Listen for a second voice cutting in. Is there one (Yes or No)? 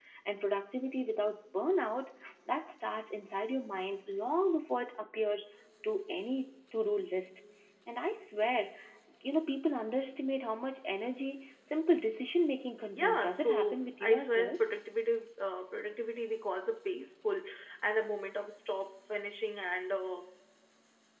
Yes